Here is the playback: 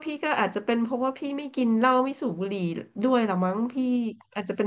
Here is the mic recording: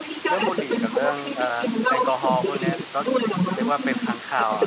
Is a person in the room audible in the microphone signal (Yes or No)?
Yes